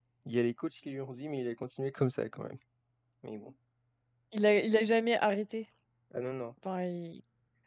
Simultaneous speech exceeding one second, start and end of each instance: none

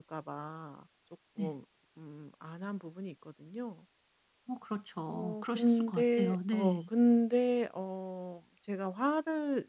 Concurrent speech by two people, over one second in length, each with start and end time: 5.1-6.8

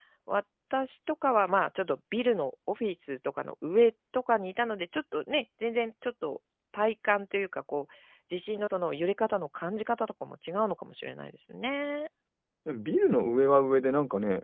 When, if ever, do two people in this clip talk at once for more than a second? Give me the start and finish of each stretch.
none

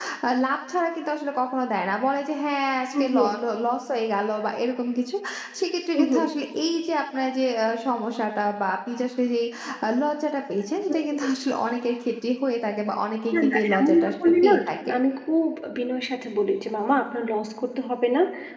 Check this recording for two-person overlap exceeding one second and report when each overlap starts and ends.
13.3-14.9

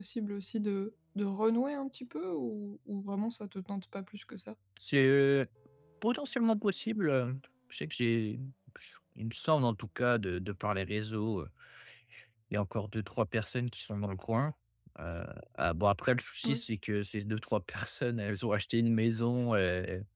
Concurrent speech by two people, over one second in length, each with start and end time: none

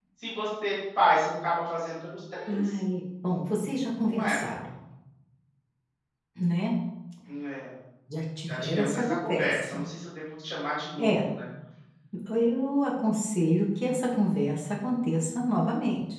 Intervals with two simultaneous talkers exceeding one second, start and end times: 8.5-9.9

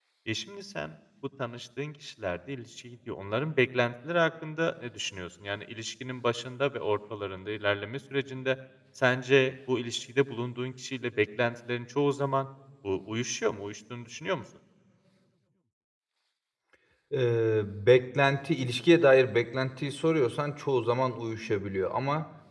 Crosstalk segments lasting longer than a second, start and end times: none

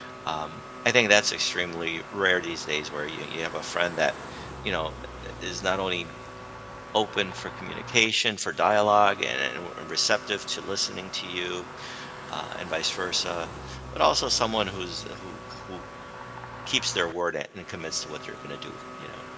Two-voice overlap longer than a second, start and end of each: none

